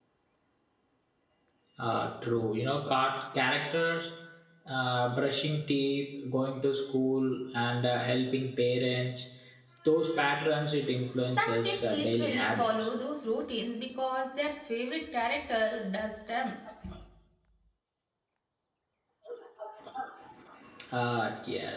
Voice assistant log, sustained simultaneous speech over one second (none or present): present